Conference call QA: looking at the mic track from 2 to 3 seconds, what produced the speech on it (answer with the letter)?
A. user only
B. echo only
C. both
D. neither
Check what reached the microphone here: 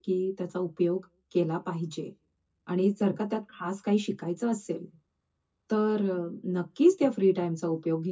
A